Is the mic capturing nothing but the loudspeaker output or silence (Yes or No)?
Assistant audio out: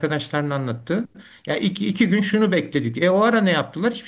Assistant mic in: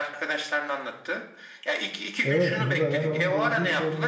No